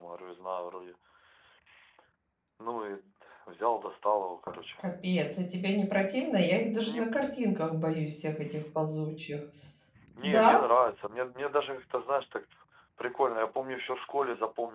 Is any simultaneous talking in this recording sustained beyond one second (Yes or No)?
No